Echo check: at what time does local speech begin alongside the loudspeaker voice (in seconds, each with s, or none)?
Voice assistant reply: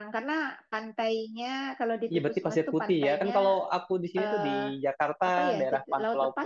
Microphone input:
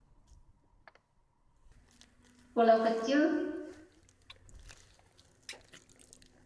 2.5 s